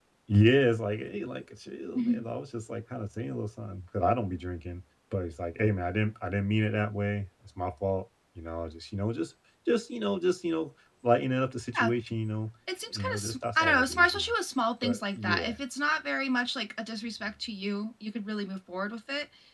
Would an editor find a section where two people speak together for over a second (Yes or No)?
Yes